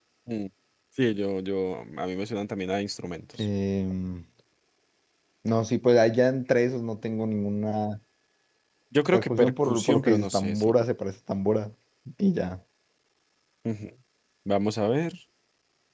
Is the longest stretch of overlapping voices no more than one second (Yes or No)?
No